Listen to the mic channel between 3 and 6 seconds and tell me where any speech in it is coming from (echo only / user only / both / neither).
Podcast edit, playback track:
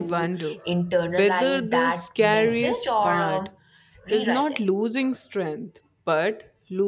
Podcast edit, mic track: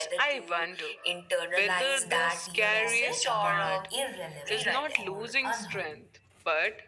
both